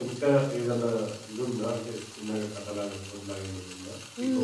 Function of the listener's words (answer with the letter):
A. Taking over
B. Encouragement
A